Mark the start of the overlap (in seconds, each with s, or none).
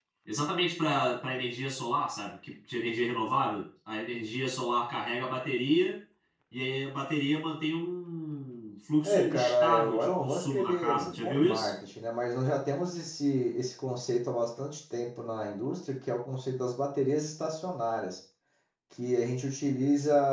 9.0 s